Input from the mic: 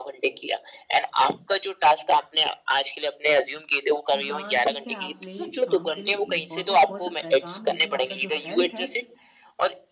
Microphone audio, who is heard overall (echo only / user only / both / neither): both